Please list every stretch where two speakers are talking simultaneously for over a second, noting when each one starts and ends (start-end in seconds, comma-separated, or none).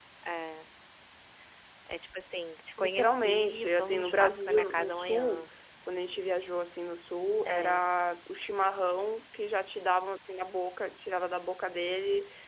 2.8-5.4